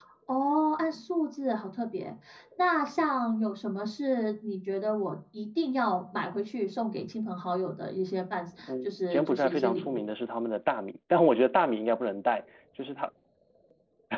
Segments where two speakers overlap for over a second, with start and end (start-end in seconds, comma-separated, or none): 8.7-10.0